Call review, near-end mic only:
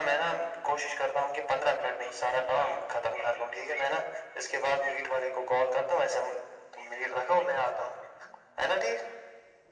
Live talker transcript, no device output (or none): none